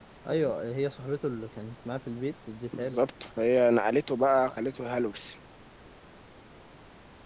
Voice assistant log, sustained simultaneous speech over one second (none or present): none